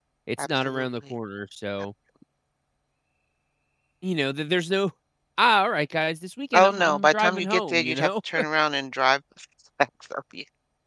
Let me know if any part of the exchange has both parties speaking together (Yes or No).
Yes